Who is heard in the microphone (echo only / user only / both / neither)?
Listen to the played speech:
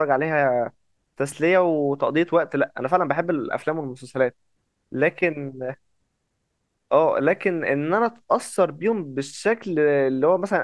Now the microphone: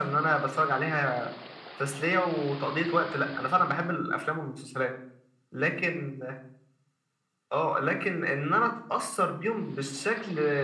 echo only